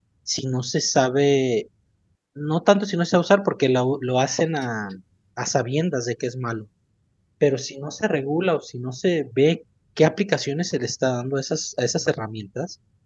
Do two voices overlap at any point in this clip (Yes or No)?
No